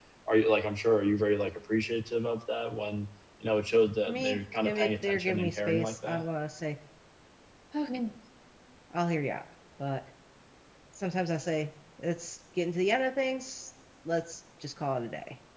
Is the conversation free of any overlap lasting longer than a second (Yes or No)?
No